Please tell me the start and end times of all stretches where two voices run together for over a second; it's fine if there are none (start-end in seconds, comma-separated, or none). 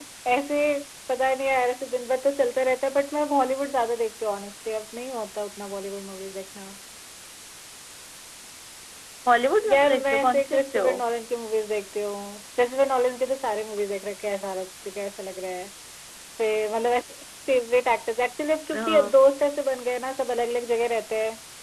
9.7-10.9